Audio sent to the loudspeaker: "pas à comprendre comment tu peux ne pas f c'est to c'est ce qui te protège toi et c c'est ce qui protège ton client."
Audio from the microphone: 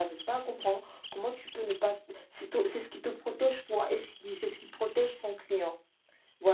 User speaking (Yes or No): No